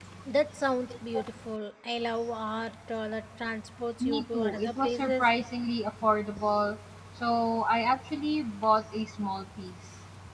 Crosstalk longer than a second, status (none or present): present